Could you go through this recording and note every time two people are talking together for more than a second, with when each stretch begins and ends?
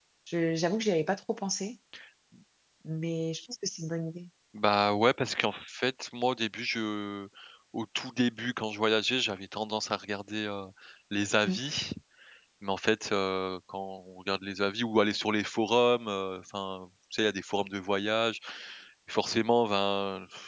none

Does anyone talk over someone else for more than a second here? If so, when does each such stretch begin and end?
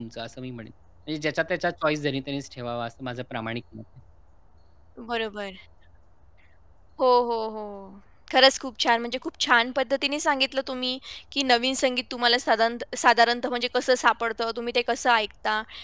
none

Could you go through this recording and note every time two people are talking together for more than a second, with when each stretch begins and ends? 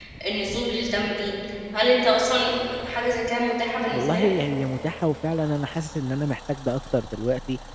none

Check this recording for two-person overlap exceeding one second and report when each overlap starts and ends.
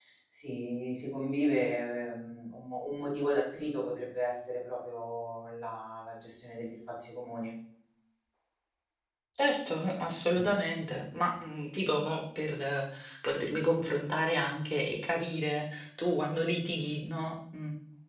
none

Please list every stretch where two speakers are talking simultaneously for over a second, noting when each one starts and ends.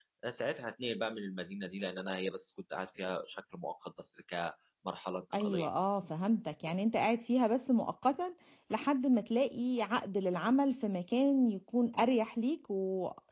none

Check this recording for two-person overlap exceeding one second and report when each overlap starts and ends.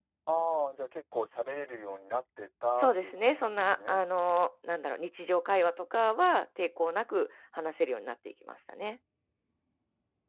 2.8-4.0

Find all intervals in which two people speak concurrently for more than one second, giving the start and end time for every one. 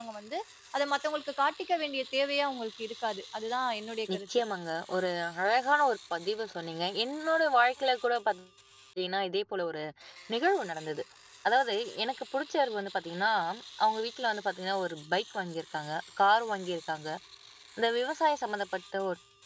none

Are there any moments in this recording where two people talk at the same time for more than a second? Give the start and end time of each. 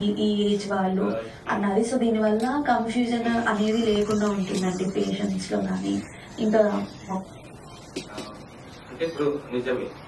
none

